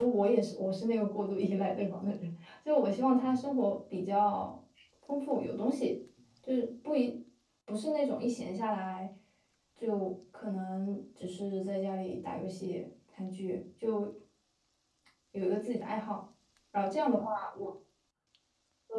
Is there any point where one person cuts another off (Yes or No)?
No